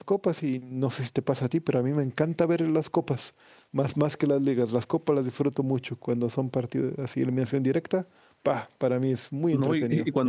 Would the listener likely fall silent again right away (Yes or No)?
No